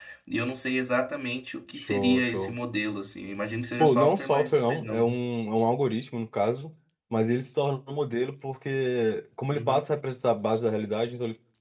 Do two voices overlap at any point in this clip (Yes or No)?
Yes